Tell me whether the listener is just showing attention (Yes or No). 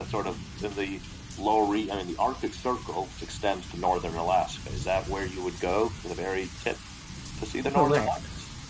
No